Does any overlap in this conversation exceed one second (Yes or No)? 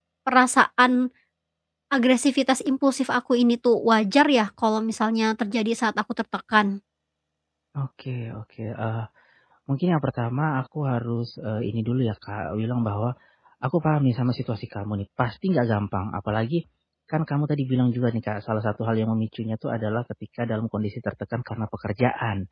No